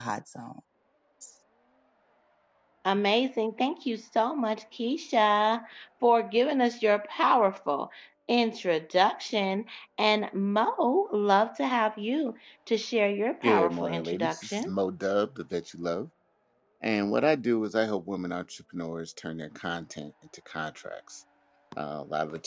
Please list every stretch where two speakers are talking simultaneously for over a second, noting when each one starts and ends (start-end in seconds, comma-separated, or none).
13.4-14.7